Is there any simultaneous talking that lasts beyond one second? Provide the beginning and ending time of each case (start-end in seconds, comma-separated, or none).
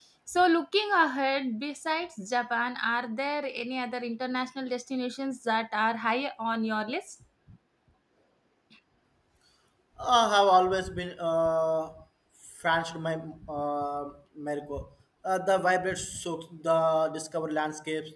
none